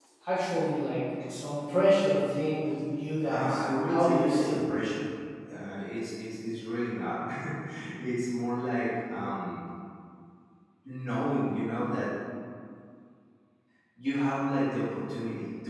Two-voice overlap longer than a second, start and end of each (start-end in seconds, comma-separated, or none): 3.3-4.7